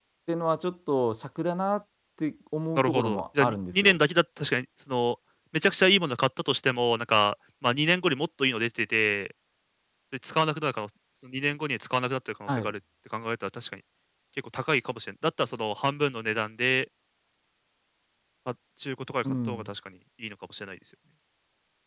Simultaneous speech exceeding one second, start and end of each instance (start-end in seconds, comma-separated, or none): 2.8-4.0